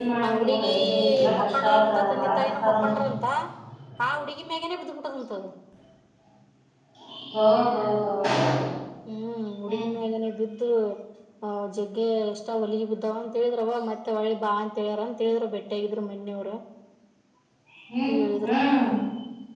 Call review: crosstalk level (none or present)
present